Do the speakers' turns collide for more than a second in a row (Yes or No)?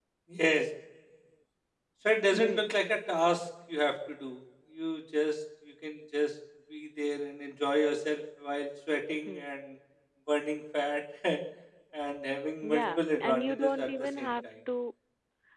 Yes